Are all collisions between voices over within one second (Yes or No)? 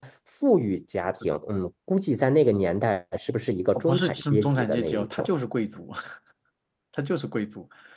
No